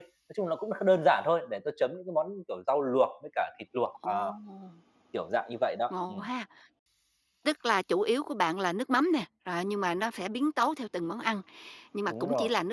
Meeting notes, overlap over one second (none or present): none